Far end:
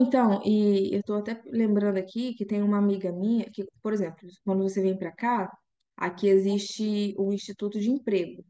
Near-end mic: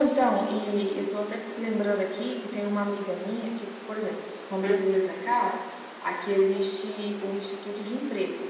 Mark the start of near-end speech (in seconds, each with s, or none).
4.6 s